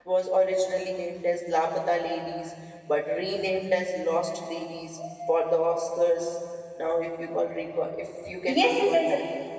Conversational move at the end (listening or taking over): taking over